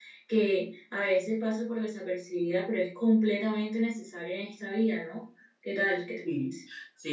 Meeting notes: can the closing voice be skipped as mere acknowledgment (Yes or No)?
No